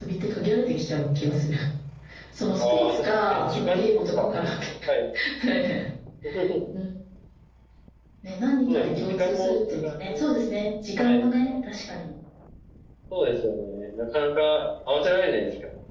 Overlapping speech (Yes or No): Yes